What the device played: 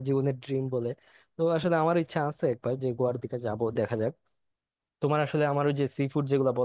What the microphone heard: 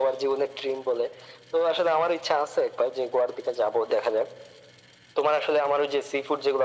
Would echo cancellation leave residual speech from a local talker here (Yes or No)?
No